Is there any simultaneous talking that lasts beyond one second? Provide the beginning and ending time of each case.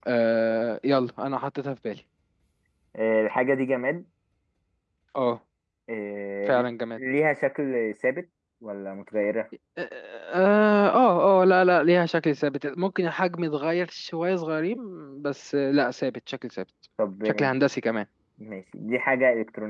none

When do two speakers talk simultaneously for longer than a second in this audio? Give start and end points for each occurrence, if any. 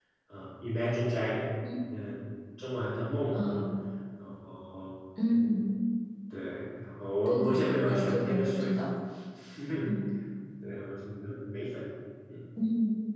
7.3-8.8

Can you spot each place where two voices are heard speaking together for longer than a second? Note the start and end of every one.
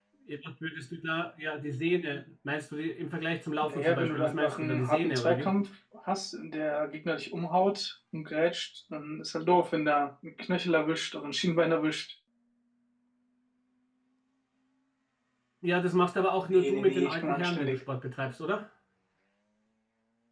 3.6-5.5, 16.5-17.8

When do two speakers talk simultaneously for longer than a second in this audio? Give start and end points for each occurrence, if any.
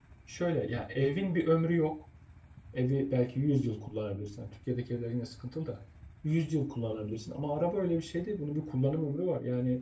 none

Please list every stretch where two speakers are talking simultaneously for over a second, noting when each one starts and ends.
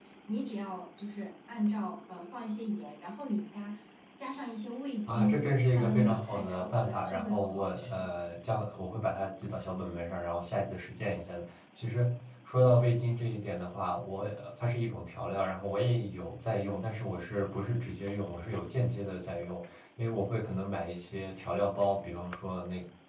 5.1-8.1

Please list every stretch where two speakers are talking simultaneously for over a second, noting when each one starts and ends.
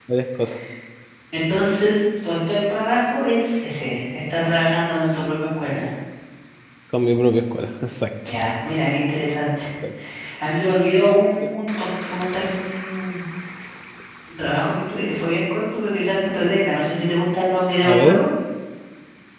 none

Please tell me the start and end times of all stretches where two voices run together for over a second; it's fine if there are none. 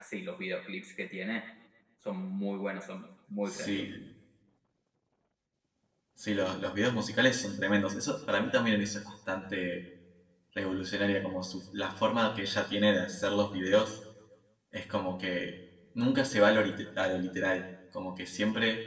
none

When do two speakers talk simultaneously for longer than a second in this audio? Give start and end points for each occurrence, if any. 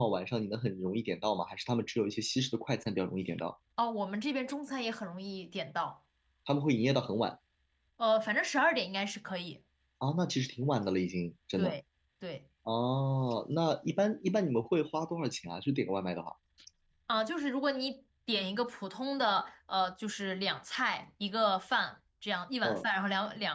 none

